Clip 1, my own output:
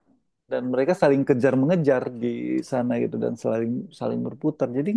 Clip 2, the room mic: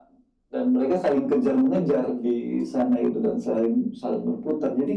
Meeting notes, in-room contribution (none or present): none